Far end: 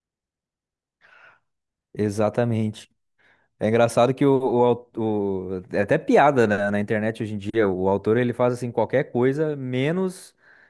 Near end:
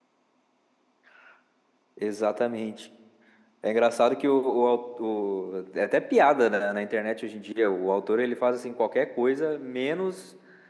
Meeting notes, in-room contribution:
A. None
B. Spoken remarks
A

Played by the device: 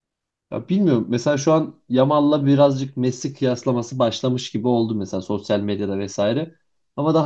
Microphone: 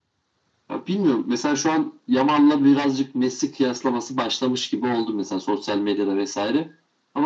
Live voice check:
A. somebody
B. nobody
B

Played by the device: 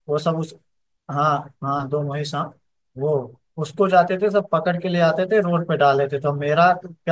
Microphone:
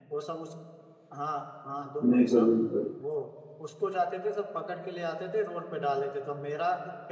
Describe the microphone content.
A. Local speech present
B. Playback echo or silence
A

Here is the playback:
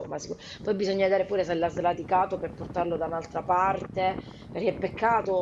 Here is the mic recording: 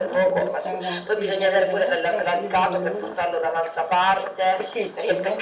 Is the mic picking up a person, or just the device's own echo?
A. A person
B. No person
A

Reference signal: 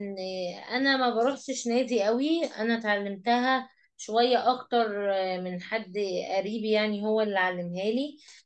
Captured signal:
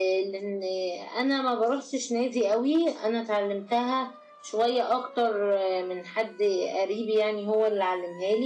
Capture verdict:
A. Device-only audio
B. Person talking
A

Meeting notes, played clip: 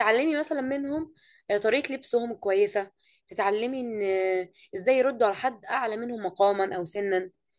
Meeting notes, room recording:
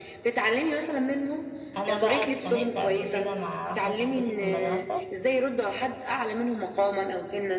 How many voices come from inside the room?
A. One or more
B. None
A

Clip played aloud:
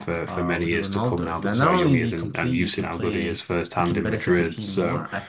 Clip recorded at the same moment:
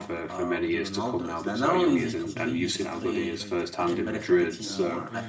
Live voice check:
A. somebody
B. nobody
A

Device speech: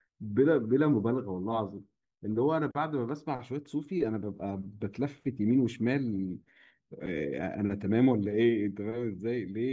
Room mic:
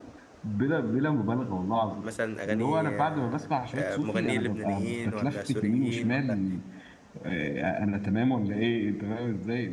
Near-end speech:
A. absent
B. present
B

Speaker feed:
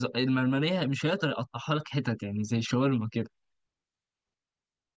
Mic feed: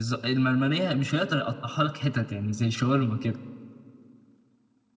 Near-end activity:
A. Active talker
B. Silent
B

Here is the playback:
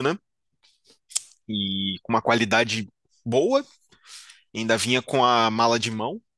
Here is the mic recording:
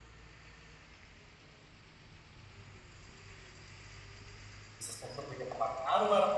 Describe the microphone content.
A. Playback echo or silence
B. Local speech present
B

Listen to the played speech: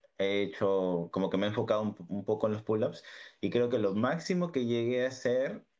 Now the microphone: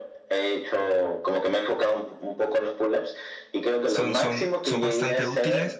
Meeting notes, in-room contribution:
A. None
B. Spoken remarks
B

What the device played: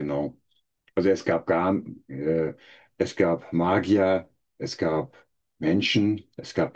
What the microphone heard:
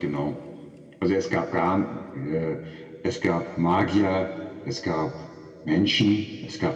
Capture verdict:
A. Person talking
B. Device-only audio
B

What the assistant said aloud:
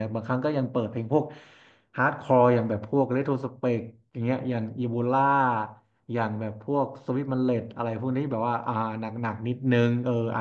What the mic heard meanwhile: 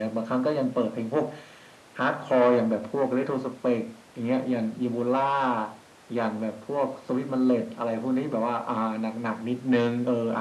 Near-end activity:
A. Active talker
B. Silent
B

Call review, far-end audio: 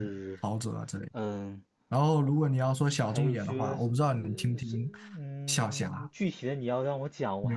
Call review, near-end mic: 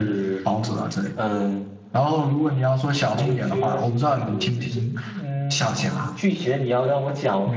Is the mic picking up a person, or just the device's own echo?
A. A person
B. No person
B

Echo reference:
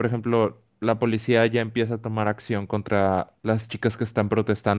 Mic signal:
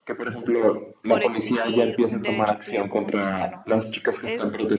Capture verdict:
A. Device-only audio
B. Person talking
B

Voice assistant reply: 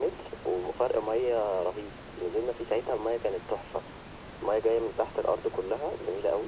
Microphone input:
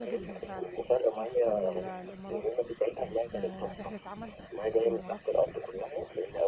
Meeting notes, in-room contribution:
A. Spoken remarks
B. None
A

